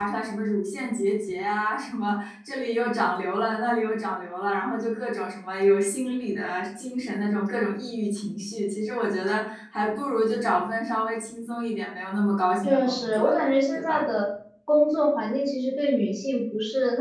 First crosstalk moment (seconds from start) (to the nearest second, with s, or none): 13 s